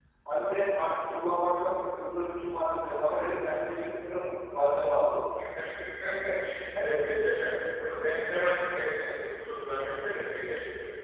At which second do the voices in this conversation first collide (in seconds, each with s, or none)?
none